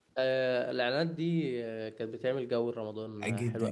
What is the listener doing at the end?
taking over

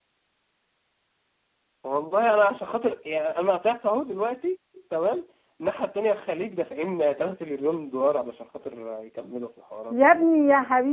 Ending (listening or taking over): taking over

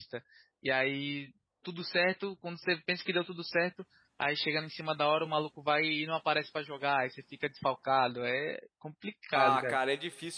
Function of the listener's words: taking over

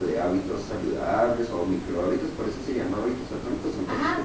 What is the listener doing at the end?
taking over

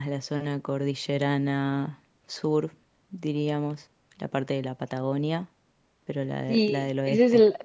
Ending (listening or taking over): taking over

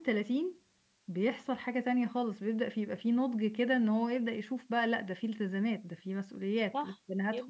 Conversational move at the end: taking over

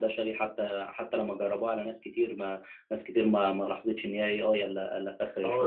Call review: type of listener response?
taking over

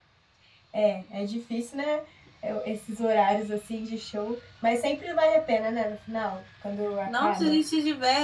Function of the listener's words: taking over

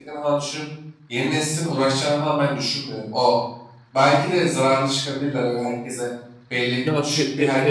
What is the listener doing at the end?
taking over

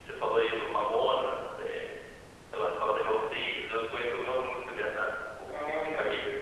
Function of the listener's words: taking over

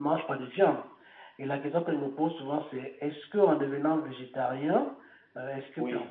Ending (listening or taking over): listening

